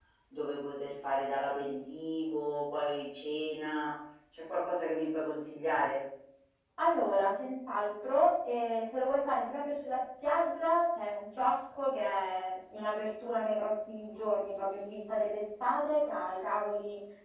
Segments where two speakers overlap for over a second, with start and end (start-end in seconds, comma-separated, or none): none